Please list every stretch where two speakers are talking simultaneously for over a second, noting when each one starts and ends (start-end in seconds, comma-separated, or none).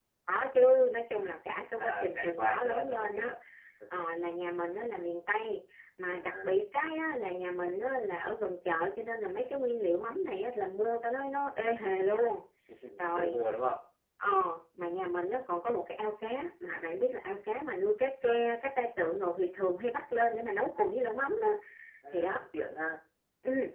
1.8-3.3